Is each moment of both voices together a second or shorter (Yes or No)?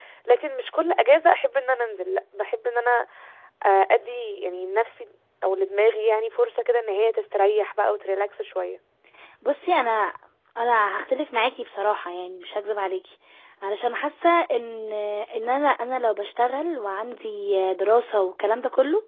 Yes